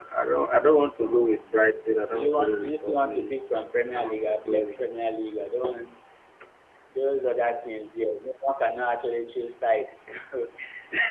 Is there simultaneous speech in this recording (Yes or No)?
Yes